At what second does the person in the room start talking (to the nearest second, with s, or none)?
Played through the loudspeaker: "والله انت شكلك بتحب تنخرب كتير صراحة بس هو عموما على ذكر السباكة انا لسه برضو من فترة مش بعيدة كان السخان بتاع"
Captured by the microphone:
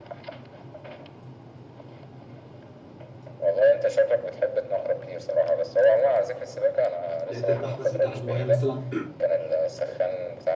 7 s